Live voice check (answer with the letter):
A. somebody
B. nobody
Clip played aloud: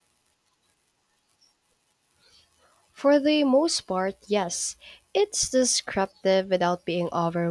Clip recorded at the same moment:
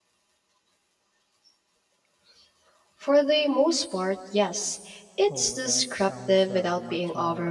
A